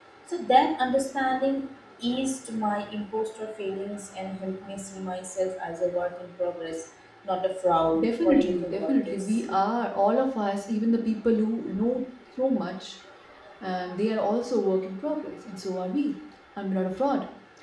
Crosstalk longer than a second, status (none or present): present